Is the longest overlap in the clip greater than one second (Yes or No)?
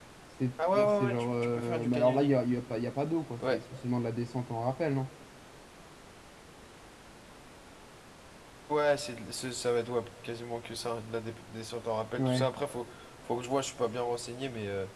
Yes